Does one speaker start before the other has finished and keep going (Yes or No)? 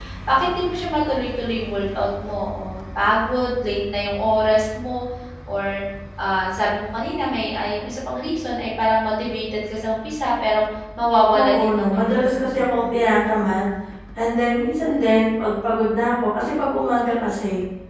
Yes